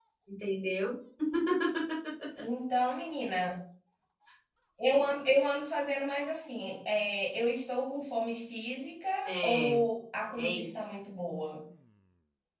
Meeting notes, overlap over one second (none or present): none